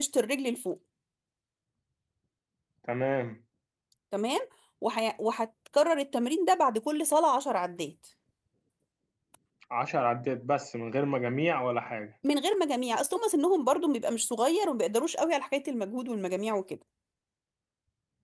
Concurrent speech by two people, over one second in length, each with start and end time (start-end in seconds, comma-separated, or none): none